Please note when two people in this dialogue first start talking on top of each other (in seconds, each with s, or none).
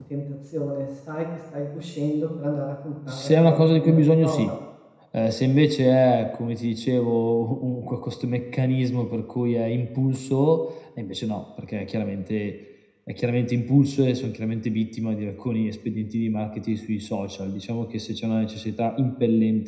3.1 s